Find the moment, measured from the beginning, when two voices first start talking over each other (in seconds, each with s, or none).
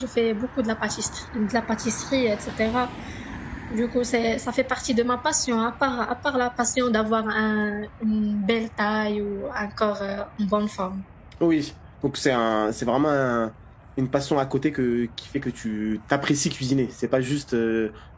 none